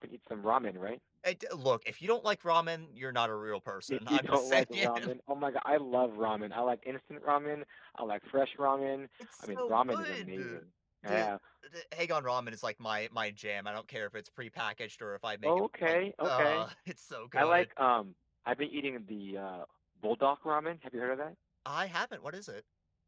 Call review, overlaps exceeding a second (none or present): present